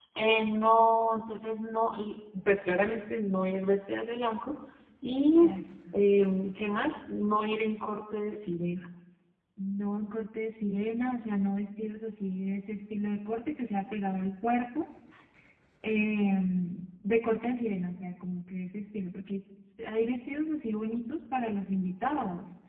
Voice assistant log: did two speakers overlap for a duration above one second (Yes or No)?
No